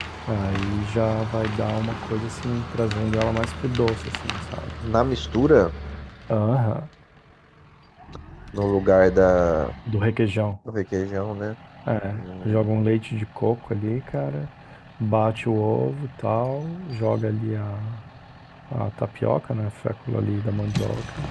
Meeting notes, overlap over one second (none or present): none